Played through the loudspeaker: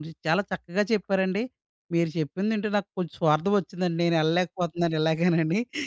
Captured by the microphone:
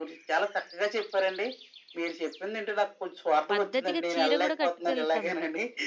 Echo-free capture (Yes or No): No